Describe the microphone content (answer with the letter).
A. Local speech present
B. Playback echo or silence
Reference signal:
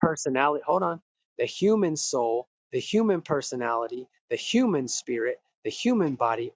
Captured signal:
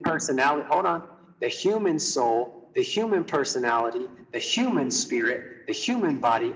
B